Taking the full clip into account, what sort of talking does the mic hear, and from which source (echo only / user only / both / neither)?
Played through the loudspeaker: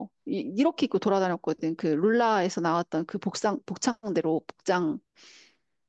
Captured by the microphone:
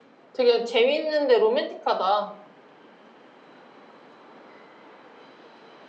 user only